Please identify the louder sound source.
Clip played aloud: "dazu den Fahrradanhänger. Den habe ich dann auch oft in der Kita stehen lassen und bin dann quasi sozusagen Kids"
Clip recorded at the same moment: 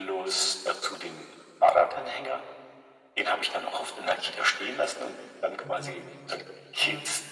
echo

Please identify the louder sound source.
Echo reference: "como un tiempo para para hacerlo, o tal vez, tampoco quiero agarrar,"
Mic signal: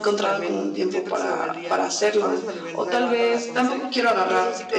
echo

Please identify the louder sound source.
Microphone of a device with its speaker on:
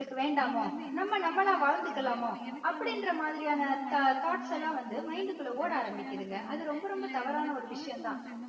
user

